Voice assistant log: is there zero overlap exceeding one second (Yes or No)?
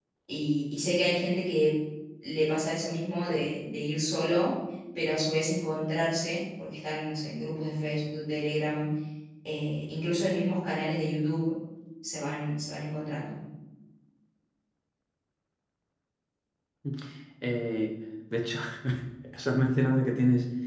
Yes